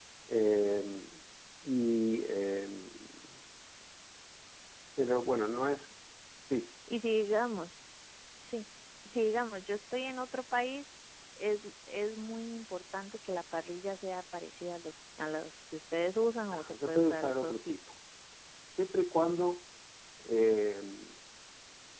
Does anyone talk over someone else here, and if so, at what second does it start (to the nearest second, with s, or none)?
17 s